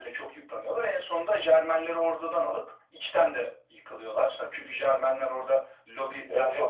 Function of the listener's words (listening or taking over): taking over